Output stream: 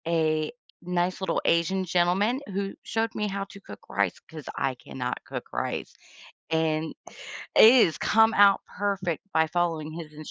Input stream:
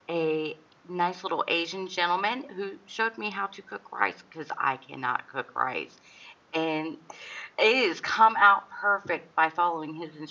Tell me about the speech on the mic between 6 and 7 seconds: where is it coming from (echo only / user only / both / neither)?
echo only